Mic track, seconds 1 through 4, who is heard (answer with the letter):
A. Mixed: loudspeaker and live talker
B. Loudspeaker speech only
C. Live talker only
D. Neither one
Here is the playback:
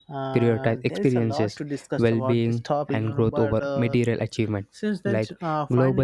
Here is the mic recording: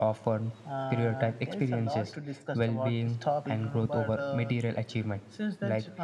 B